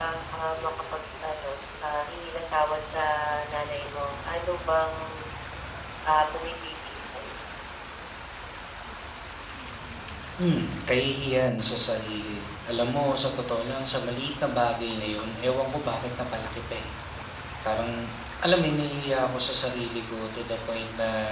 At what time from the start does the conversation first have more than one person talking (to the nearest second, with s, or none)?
none